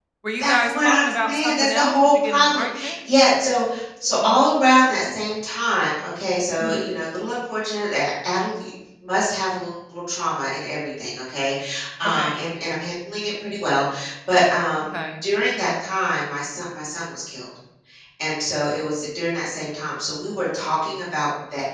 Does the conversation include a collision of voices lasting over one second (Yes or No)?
Yes